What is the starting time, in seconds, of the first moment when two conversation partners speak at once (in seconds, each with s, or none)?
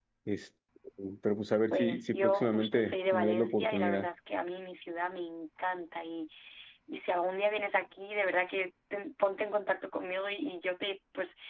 1.7 s